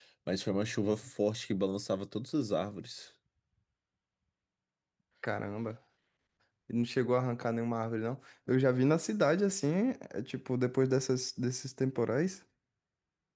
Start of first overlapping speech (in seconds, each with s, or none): none